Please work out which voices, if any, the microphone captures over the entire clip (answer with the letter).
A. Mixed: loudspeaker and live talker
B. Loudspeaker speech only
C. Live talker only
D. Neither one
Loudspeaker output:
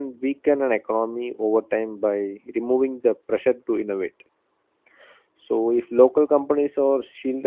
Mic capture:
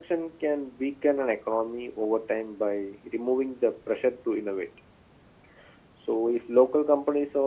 B